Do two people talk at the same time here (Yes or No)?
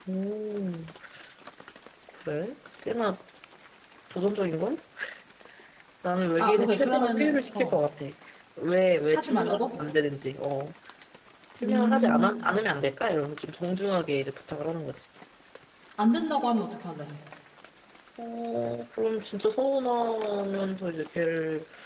Yes